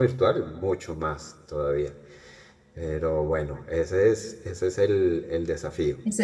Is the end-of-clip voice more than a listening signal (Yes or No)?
Yes